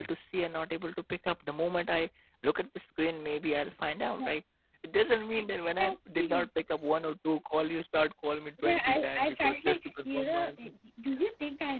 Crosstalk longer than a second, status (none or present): present